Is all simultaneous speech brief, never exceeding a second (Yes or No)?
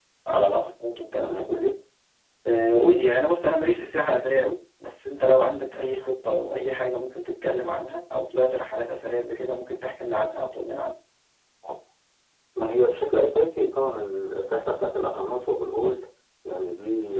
Yes